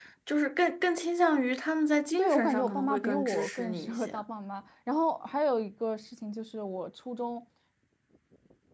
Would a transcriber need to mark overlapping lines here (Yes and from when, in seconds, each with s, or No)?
Yes, from 2.2 s